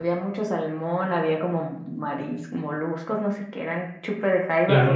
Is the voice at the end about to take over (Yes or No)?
No